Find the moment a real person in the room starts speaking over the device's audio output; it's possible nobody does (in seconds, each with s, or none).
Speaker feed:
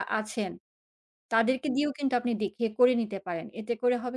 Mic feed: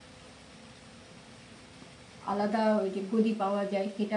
2.3 s